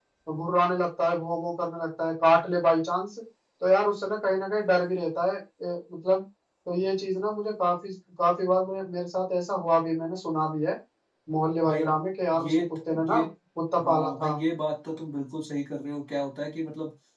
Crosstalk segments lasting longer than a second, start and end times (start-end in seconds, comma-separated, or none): none